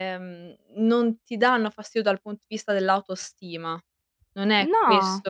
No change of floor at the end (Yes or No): Yes